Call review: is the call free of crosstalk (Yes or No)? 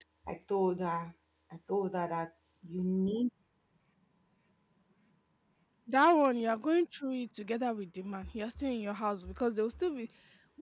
Yes